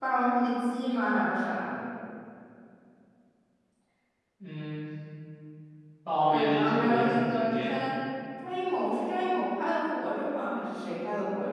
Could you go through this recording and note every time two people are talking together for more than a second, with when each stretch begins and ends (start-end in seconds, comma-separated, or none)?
6.3-7.8